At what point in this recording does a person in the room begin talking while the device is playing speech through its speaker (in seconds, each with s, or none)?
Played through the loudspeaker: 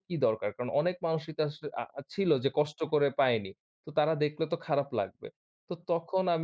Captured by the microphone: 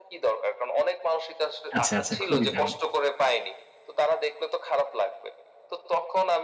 1.8 s